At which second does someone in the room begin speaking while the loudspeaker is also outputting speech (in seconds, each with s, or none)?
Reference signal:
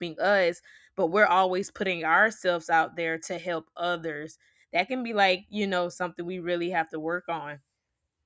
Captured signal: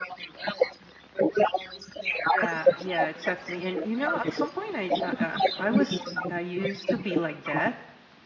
2.3 s